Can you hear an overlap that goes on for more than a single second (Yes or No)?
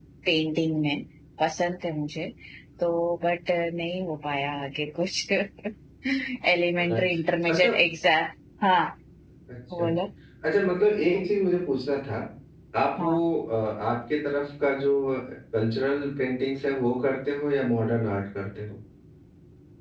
No